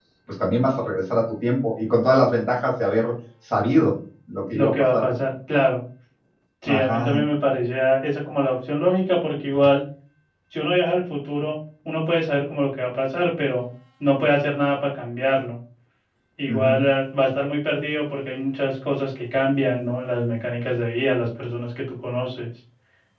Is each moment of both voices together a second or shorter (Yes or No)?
Yes